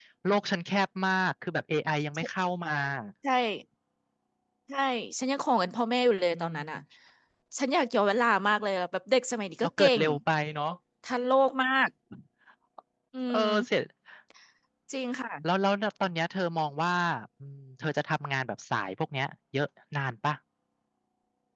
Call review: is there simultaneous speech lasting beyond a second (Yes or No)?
No